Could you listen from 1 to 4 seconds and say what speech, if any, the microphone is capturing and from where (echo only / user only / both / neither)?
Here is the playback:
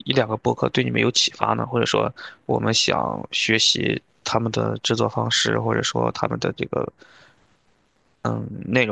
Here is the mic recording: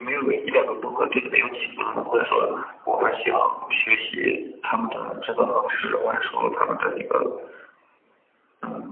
echo only